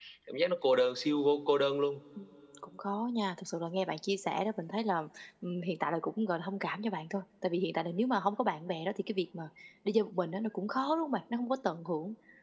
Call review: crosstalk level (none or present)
none